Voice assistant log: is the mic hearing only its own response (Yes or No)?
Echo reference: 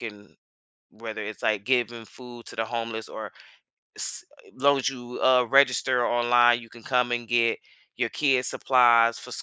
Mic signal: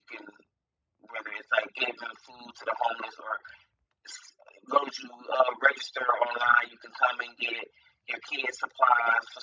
Yes